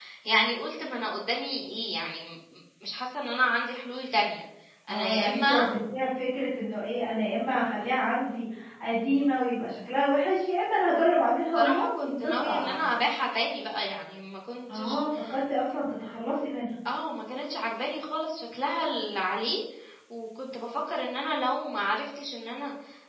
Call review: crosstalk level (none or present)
present